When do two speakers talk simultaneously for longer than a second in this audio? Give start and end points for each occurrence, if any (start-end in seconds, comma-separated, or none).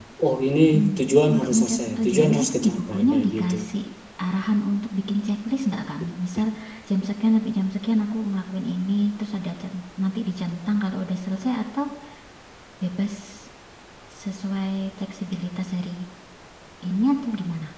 1.3-3.6